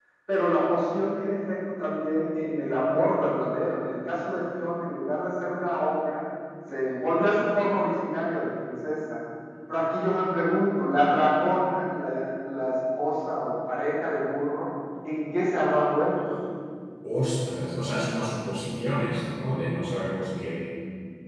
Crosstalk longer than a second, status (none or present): none